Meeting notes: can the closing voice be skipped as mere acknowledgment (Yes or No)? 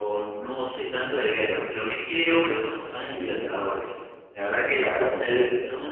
Yes